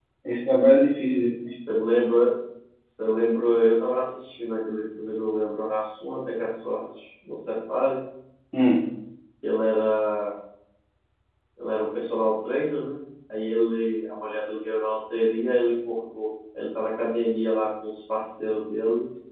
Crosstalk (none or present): none